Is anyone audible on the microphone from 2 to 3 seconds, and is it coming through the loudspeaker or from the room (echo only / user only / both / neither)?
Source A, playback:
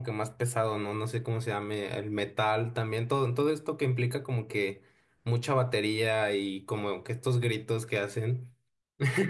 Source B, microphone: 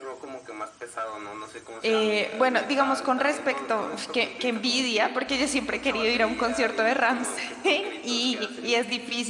both